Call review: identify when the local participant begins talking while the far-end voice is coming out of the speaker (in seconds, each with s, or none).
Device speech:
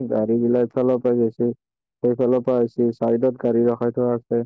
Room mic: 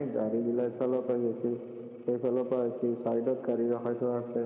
none